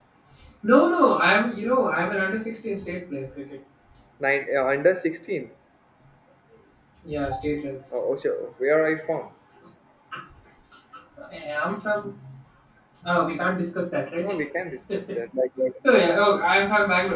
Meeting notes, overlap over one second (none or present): none